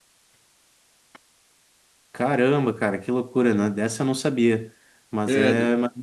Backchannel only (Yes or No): Yes